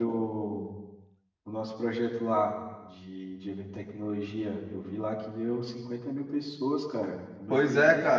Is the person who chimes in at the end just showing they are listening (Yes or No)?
No